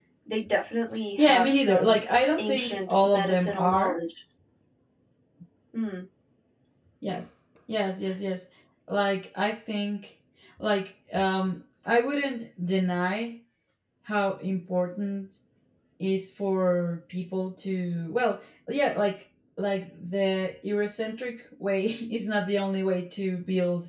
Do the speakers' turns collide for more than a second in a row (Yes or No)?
Yes